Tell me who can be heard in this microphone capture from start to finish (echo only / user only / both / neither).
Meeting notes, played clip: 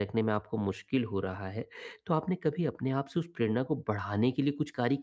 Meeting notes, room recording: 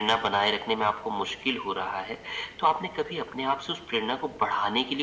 echo only